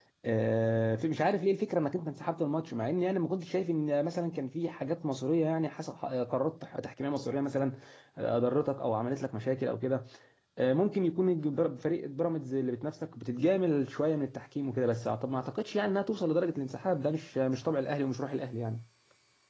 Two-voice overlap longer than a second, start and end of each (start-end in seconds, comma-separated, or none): none